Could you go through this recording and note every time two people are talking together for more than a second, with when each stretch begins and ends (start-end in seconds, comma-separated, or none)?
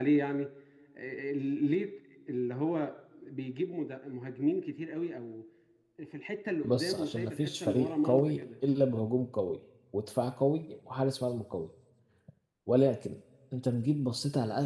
6.6-8.4